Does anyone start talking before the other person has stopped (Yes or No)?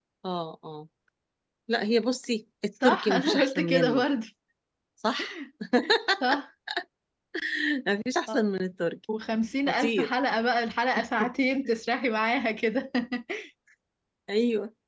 Yes